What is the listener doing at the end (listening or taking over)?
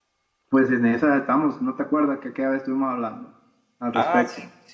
taking over